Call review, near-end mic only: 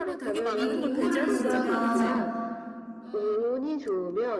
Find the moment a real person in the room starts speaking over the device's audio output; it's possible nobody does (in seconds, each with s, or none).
0.4 s